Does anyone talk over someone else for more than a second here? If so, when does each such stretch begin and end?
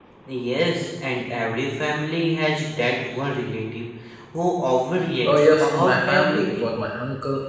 5.2-6.7

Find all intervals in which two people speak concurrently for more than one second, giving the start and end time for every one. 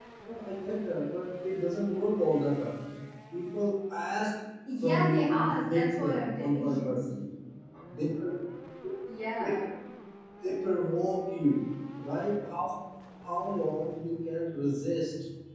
4.8-7.0

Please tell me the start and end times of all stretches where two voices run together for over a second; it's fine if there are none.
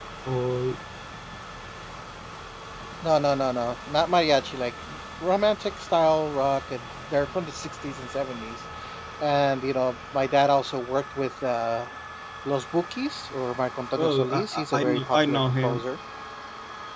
14.0-15.8

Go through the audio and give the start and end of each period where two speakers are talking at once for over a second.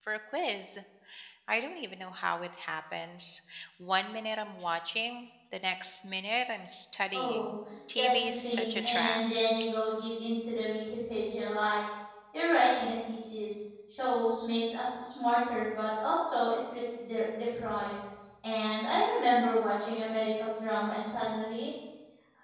8.0-9.2

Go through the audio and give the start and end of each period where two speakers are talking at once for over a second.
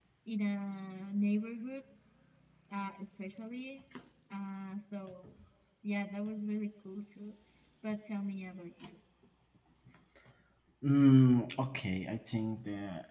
none

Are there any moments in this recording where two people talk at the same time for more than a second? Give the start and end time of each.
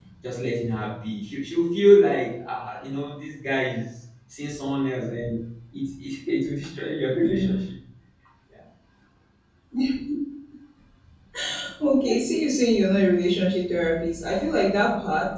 none

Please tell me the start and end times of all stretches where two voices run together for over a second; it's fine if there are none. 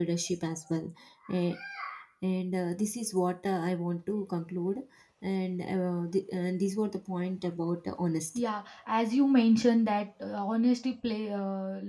none

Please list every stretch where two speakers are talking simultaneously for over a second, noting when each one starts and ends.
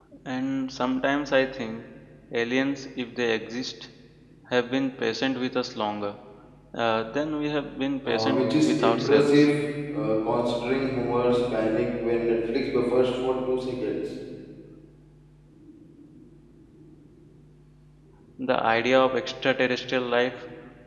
8.1-9.5

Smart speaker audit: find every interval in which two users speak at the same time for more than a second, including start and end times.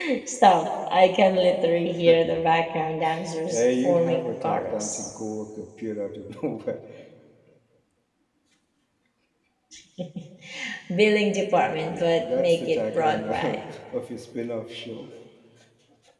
3.5-5.1, 11.9-13.6

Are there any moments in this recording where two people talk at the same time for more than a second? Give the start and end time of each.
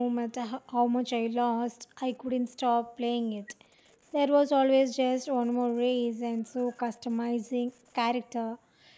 none

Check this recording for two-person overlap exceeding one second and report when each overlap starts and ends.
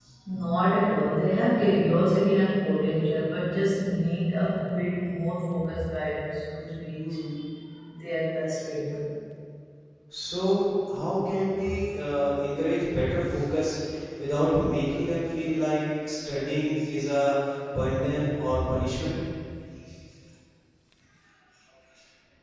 none

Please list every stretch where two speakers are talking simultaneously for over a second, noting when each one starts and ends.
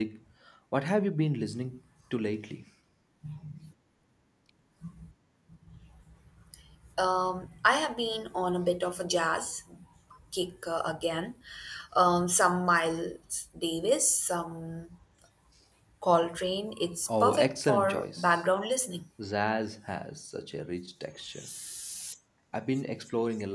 17.1-18.4

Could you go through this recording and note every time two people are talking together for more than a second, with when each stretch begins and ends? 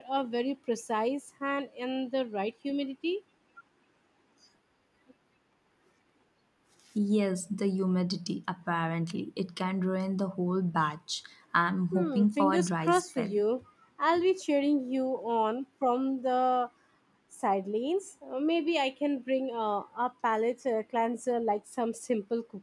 11.9-13.4

